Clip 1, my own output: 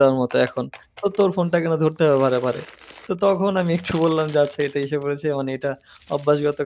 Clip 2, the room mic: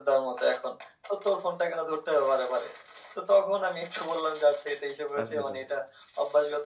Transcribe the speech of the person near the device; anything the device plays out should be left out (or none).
আচ্ছা, আচ্ছা।